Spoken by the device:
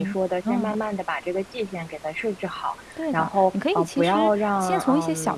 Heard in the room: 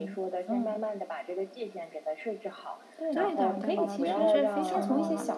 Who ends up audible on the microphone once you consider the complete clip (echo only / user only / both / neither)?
both